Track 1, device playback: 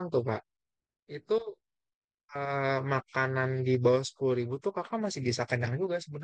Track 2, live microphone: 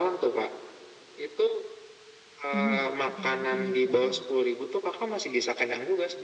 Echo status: present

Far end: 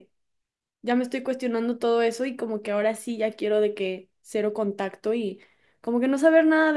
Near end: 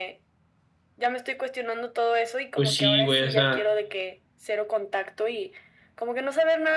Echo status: present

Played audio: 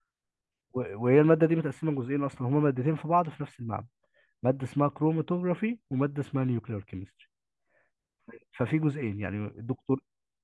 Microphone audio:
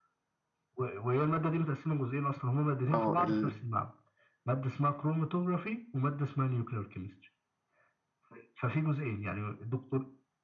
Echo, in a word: present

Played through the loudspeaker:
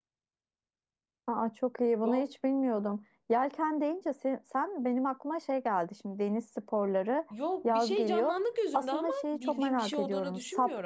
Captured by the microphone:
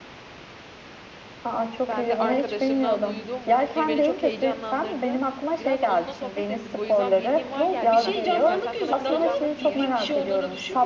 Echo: present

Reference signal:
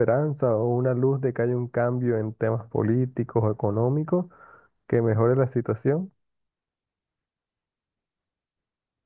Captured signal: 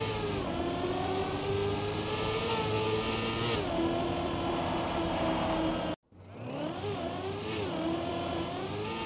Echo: none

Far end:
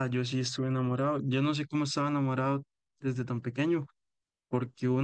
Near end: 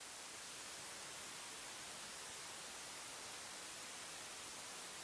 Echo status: none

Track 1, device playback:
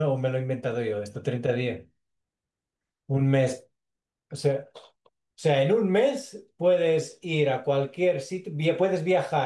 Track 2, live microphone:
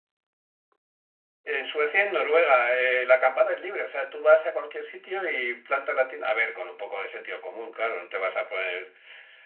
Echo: none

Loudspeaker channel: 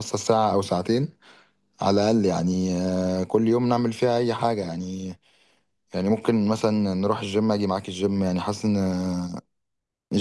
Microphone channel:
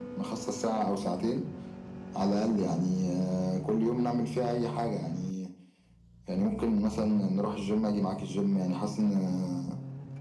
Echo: present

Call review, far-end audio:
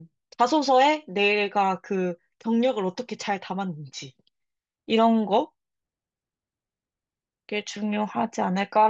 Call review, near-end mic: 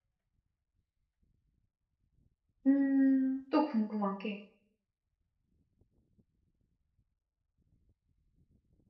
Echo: none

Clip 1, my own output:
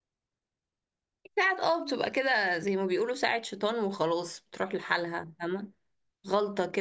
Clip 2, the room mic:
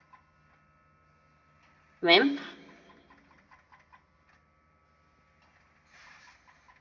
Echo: none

